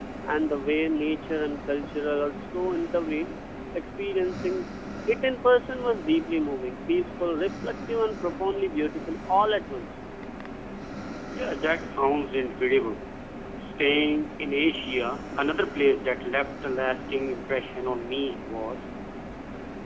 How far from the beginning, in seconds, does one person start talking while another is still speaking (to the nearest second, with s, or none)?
none